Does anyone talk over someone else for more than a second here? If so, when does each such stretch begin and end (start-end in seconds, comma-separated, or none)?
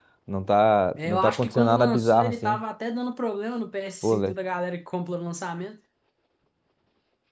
1.0-2.6